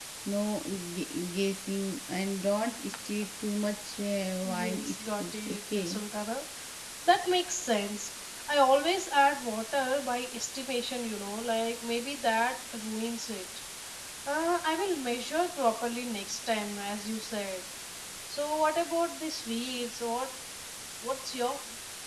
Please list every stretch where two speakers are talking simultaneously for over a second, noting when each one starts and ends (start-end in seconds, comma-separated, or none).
4.5-6.0